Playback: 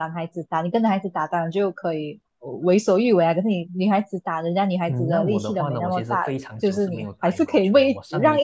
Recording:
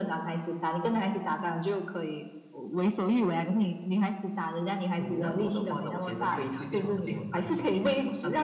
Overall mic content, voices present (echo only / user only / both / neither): both